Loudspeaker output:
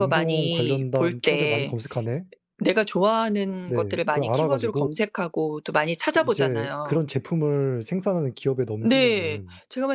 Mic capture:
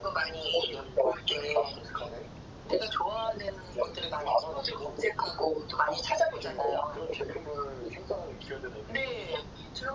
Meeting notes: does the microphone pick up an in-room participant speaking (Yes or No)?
No